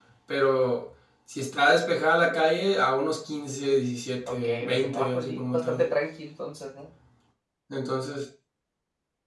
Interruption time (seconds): 4 s

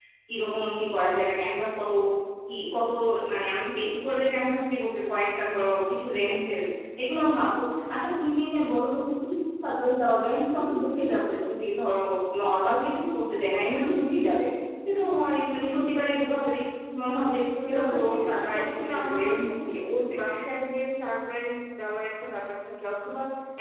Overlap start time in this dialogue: 18 s

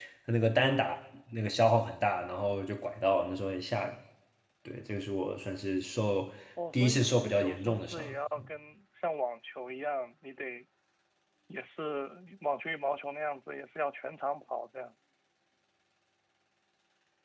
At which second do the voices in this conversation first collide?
7 s

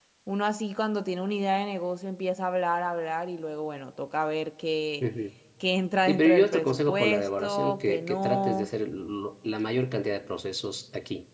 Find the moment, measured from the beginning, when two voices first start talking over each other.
6 s

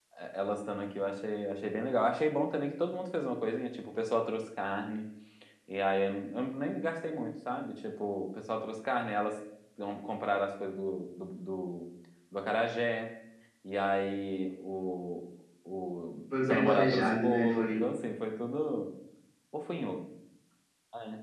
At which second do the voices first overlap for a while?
16 s

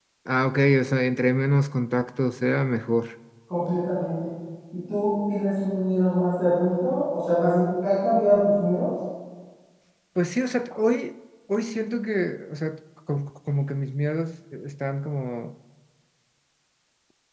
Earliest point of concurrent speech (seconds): none

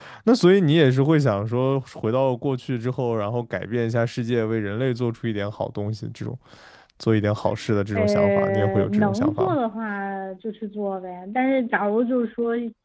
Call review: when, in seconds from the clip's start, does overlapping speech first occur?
8 s

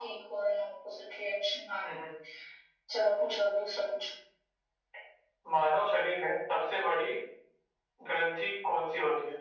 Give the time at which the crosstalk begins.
none

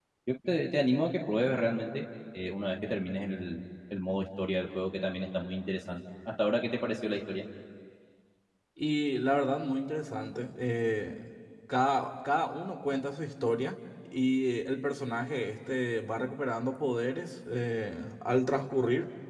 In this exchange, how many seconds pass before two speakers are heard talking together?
none

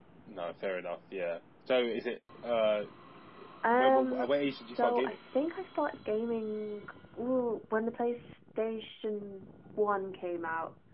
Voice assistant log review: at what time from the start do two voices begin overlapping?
4 s

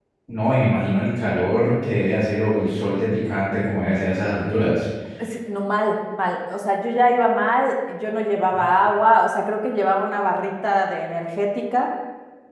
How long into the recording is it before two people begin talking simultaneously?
none

